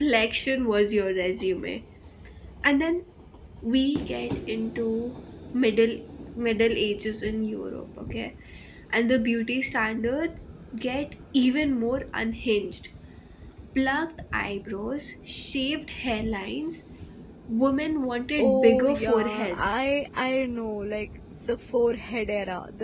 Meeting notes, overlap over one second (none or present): present